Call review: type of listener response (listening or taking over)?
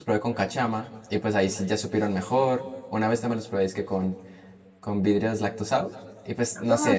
taking over